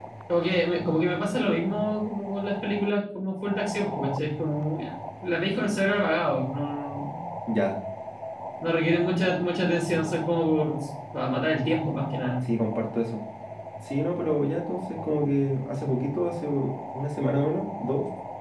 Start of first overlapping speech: none

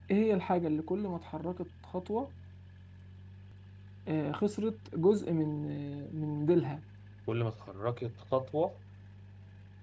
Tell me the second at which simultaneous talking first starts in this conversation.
none

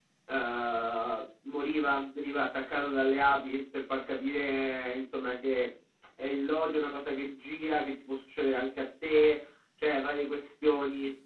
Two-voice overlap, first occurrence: none

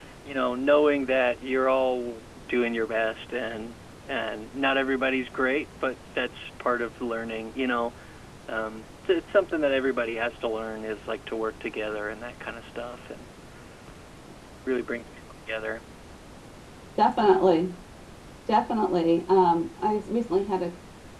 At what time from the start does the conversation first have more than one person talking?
none

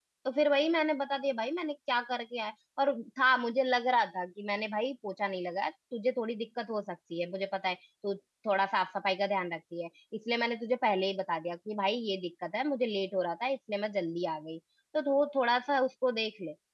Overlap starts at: none

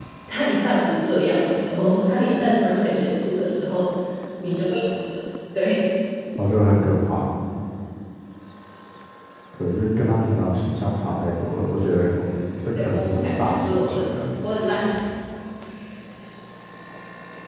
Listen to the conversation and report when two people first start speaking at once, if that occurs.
12.8 s

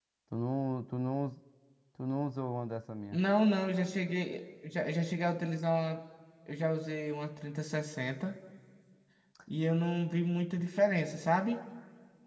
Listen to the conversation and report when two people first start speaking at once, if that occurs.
none

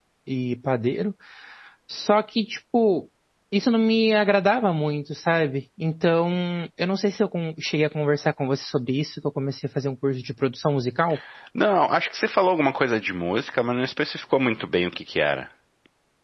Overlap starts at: none

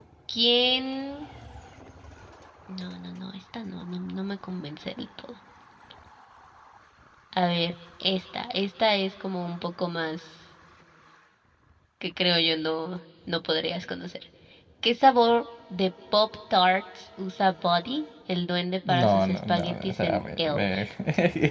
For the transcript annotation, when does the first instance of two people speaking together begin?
18.8 s

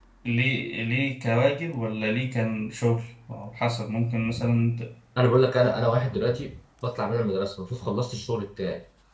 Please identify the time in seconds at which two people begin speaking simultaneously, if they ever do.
none

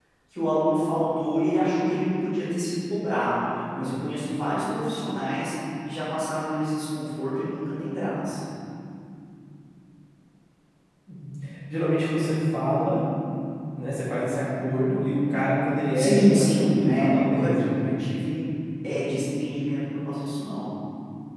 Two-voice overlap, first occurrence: 15.9 s

